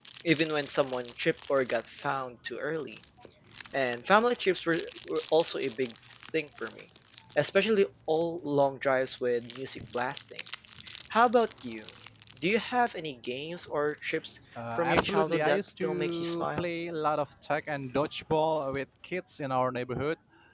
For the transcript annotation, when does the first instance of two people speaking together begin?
14.6 s

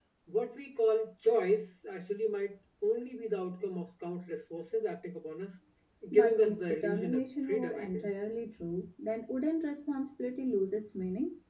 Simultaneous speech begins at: 6.1 s

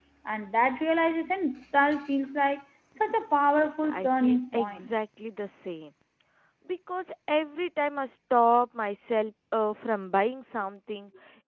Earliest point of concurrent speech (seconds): 3.5 s

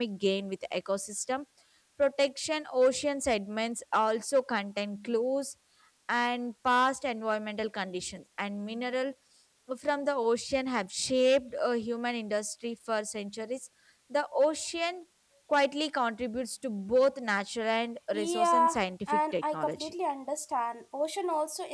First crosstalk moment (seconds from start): 18.1 s

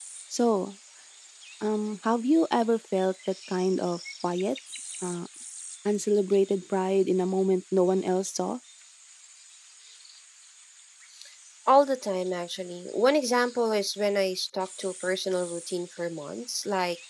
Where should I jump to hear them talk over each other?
none

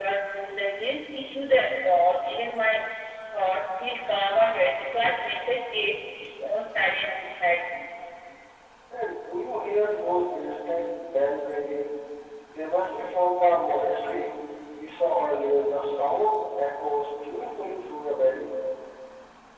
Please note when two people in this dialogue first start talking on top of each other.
none

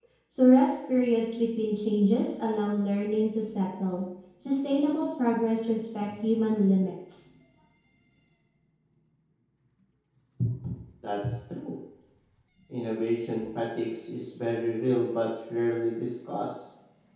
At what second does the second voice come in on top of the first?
none

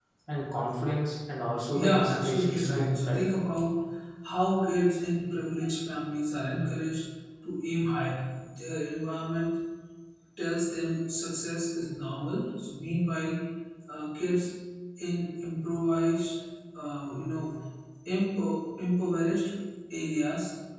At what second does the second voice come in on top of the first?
1.7 s

